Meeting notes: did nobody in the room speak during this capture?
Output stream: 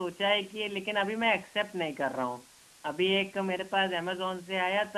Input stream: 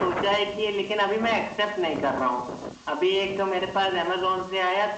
Yes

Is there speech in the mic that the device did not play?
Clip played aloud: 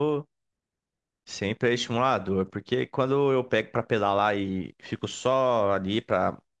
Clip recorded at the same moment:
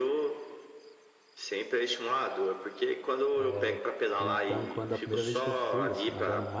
Yes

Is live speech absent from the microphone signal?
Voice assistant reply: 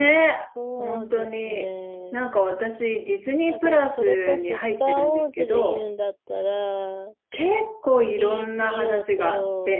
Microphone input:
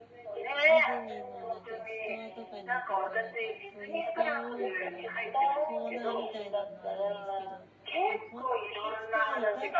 No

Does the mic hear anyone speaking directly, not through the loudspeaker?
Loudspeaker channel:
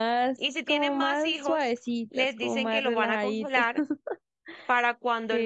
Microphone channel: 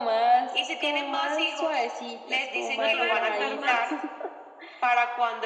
Yes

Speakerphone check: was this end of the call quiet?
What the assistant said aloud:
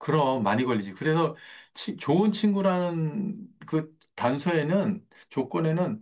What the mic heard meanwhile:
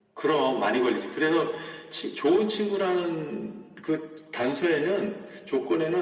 Yes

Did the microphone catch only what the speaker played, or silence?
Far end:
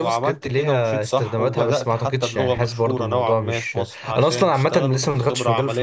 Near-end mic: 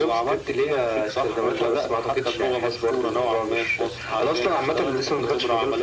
Yes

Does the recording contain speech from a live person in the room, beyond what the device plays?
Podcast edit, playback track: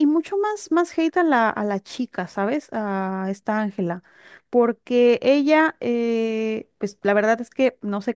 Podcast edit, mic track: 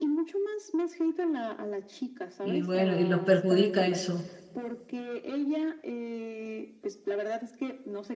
Yes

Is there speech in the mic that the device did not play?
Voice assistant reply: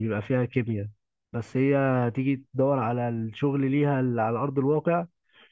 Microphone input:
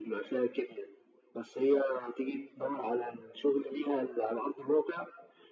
No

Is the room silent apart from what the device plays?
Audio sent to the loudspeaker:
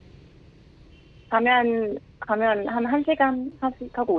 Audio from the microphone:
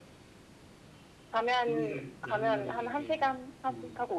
No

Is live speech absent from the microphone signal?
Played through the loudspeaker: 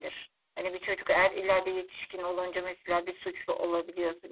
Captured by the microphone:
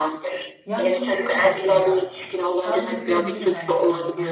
No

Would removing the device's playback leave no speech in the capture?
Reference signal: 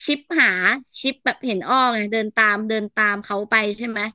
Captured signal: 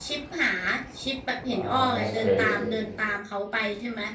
No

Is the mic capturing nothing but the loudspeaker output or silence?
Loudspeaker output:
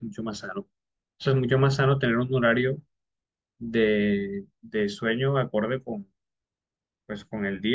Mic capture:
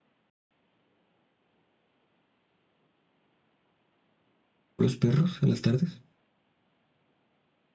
No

